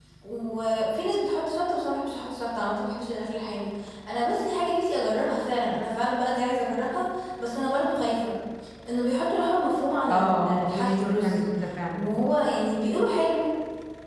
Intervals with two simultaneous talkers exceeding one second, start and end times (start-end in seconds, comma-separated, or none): 10.1-11.4